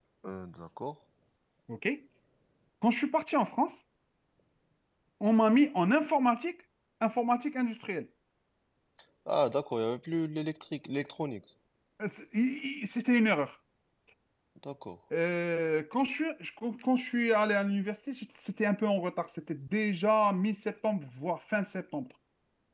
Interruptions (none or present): none